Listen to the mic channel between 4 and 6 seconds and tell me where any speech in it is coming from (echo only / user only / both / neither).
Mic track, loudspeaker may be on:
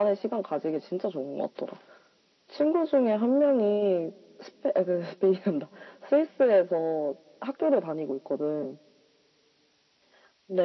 echo only